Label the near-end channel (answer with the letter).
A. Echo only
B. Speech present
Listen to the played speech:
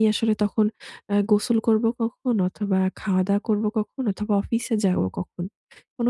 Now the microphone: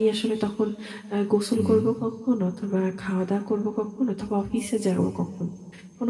B